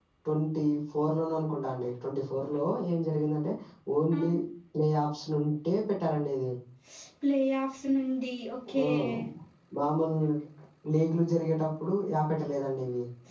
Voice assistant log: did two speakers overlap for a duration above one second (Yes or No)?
No